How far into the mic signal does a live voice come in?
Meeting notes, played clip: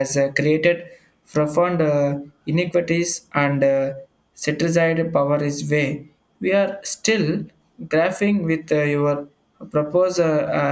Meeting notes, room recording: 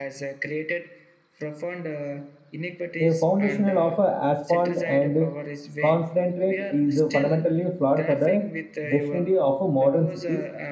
3.0 s

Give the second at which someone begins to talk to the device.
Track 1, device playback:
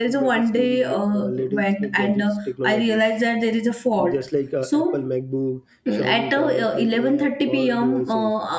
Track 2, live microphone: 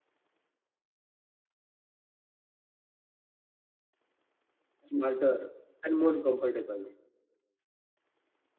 4.8 s

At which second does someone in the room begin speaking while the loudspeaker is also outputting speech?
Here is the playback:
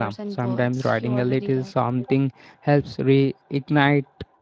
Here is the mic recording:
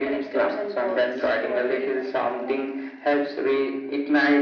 none

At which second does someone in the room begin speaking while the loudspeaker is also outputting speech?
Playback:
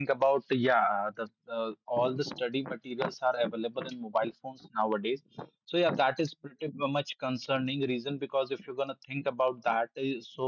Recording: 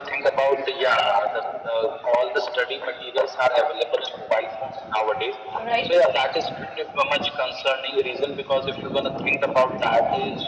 5.6 s

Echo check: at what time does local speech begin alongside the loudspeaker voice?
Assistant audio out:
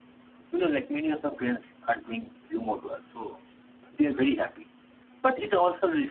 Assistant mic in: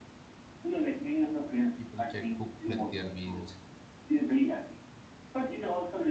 1.8 s

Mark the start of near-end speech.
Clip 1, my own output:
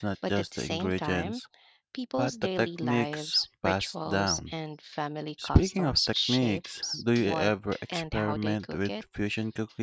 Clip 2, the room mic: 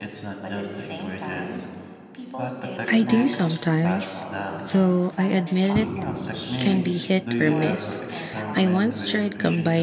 2.9 s

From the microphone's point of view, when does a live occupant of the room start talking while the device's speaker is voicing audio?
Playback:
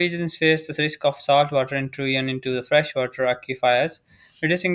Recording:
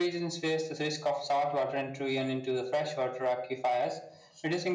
none

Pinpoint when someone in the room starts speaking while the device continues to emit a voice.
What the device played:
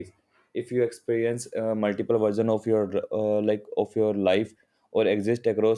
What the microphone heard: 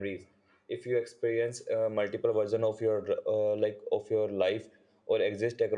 none

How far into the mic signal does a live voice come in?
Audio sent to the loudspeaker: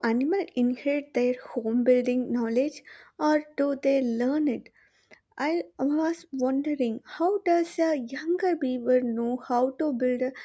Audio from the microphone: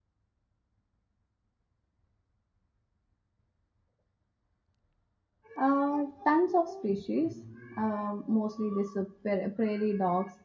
5.6 s

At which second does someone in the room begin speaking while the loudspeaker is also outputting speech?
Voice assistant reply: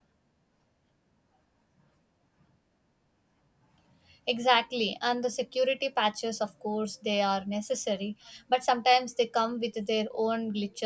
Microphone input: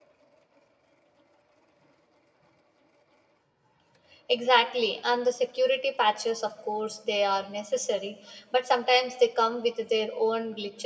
none

